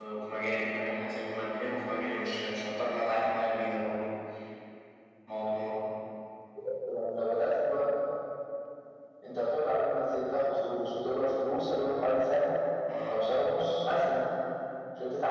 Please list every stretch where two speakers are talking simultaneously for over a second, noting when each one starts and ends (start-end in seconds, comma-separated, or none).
none